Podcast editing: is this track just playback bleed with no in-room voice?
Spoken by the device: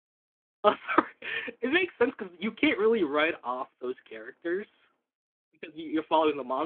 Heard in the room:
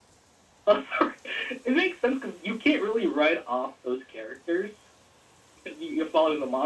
Yes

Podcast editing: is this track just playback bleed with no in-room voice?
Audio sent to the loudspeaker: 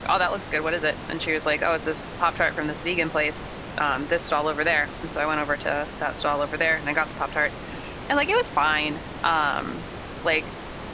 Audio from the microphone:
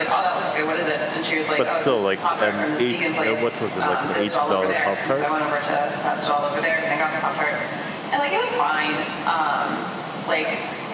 No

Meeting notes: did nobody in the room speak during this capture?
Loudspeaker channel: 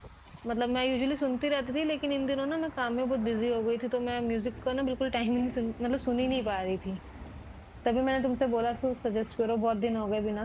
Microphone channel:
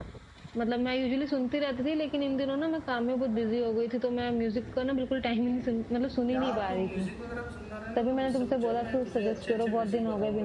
No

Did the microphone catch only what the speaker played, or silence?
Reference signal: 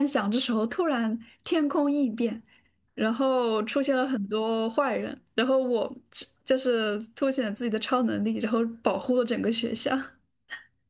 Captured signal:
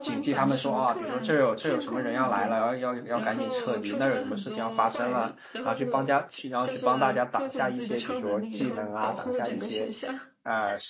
No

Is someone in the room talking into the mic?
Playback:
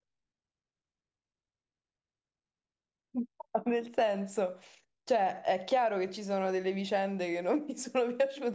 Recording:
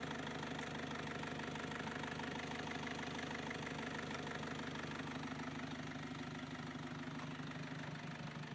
No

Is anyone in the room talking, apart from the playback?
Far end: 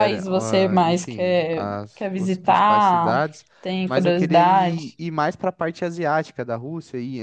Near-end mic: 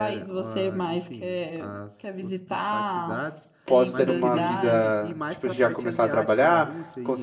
Yes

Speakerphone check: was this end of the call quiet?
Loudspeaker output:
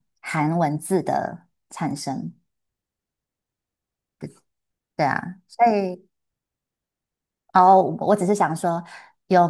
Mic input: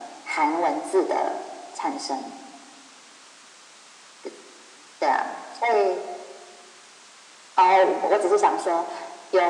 Yes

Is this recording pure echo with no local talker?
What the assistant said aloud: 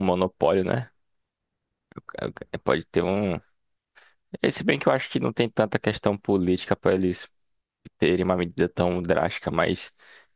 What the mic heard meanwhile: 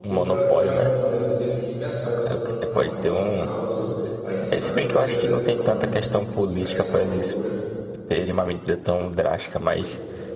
No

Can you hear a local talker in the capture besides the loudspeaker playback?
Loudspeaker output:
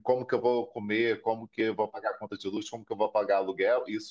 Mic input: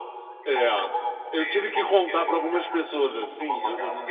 Yes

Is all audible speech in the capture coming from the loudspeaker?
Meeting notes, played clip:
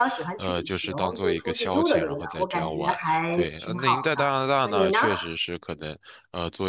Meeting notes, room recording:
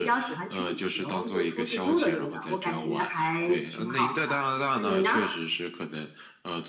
Yes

